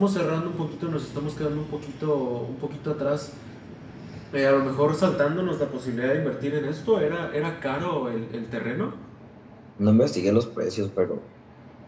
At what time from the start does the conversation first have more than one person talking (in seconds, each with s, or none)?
none